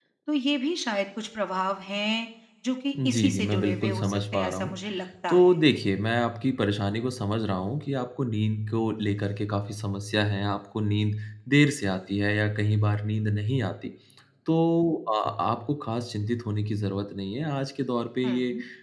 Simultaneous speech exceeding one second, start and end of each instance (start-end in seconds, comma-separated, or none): 3.0-4.8